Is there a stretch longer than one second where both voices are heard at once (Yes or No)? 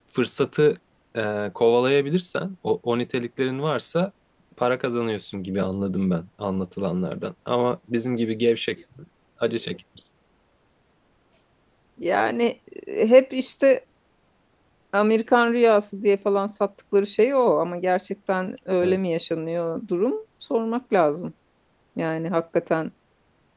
No